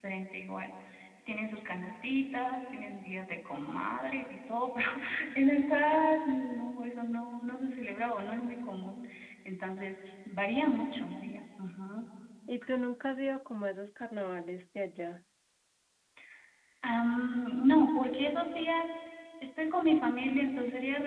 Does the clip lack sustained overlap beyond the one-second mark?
Yes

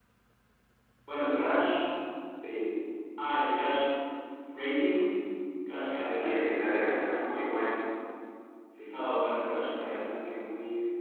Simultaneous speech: Yes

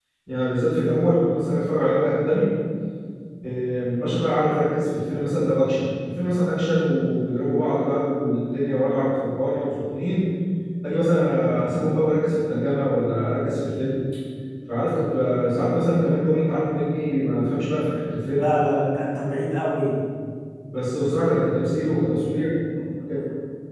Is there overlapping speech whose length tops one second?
No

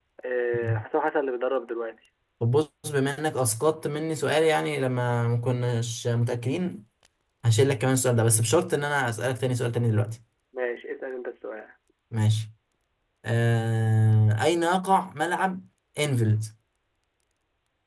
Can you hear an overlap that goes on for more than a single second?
No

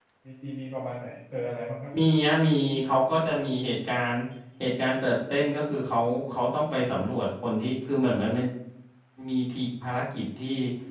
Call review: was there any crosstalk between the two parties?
No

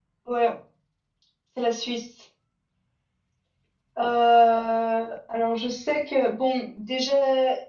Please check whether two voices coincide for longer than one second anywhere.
No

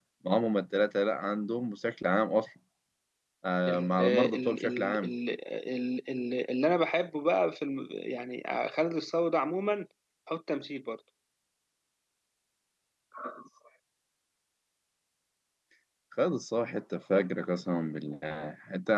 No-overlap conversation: No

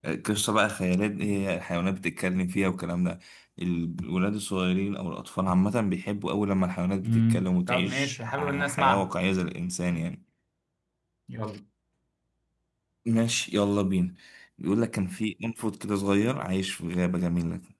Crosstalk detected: Yes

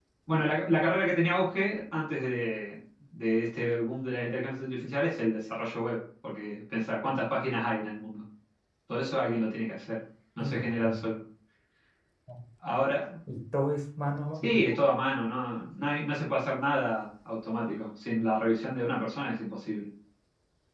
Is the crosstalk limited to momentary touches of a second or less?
Yes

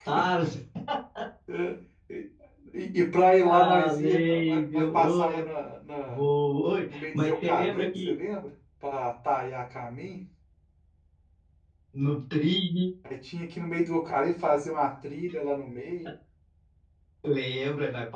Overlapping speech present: Yes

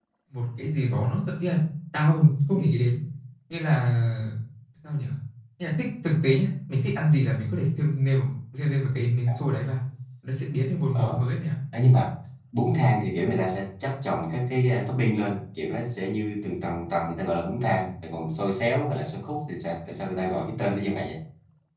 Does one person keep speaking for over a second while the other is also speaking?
No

